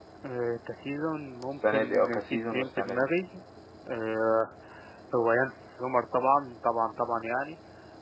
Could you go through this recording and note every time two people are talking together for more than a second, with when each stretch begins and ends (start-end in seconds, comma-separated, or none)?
1.7-3.1